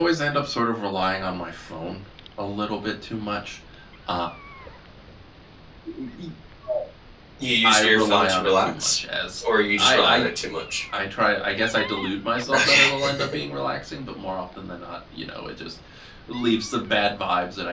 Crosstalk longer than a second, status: present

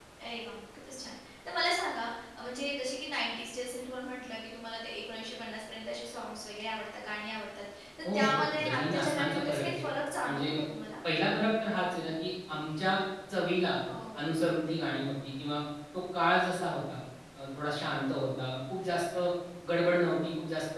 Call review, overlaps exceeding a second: present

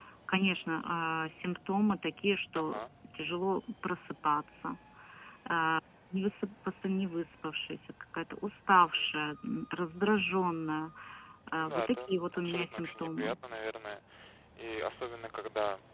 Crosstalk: present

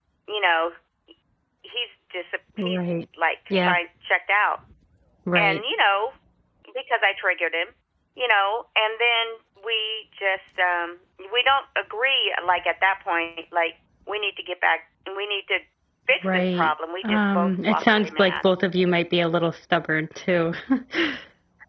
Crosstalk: present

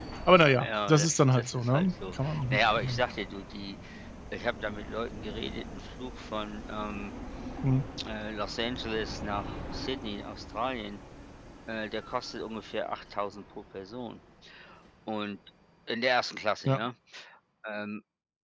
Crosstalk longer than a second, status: present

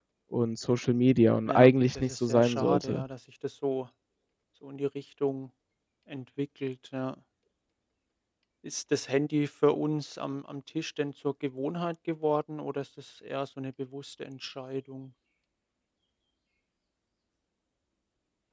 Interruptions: present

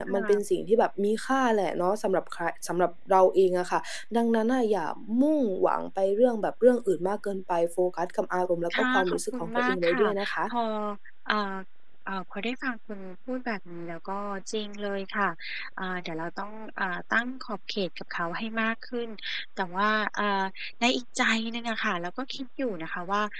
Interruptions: present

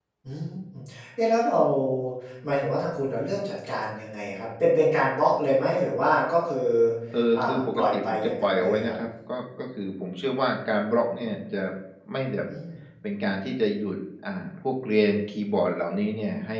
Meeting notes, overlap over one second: present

